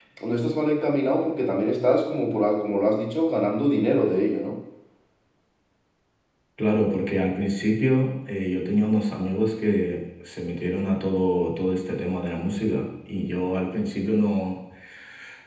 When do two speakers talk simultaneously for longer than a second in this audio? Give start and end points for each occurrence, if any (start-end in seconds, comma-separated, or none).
none